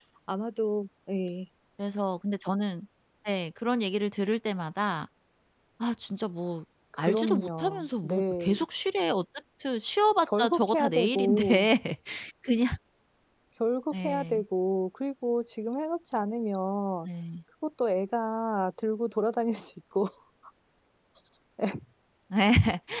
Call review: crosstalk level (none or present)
present